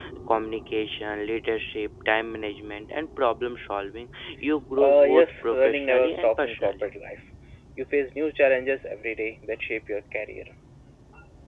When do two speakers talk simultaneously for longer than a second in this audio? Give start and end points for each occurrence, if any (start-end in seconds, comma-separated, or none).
4.8-6.9